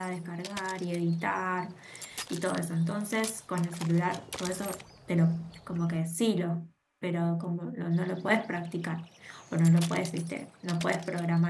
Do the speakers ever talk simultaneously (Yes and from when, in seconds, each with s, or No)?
No